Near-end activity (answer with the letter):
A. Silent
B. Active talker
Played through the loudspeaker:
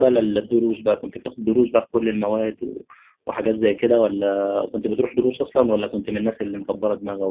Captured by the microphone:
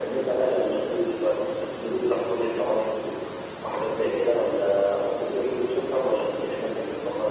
A